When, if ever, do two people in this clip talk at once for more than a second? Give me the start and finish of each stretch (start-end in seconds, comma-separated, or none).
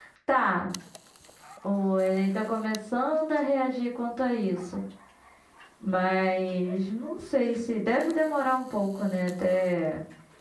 none